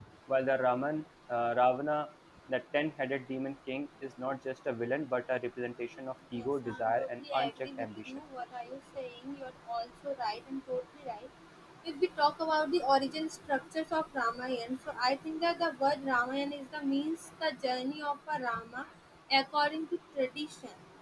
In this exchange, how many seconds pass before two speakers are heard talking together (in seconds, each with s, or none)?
6.4 s